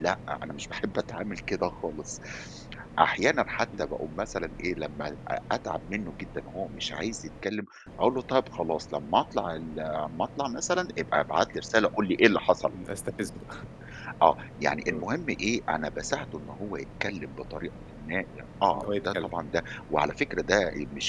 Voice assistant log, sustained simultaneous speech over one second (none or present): none